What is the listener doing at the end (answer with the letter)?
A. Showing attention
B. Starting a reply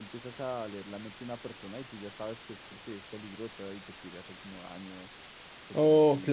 B